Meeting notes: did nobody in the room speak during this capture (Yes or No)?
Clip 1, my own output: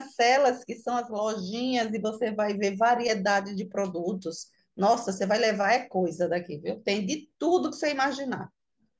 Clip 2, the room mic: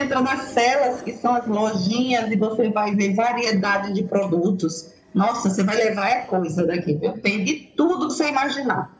Yes